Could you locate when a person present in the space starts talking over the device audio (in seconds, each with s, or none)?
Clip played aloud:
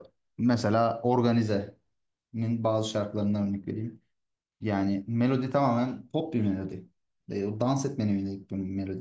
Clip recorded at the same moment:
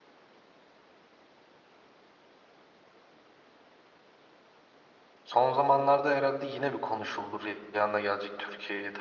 5.2 s